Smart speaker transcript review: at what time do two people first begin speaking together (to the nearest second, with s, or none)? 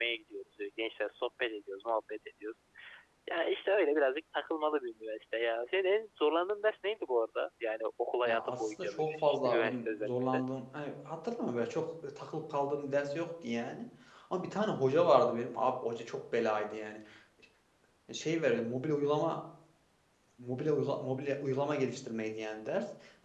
8 s